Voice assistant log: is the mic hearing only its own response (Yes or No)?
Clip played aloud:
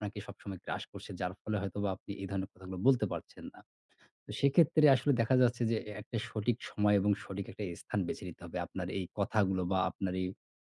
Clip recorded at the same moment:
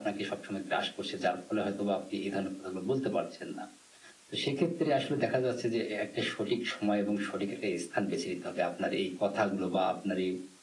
Yes